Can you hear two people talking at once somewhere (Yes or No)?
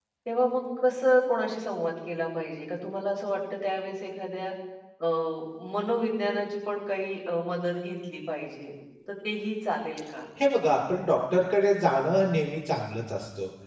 No